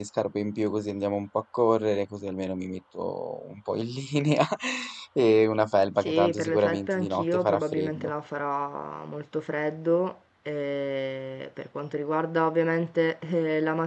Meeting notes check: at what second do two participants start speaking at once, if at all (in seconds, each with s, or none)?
6.0 s